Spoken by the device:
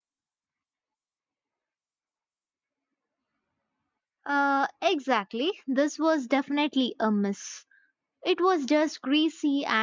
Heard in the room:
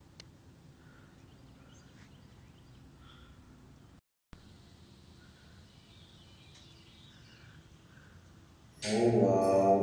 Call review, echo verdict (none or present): none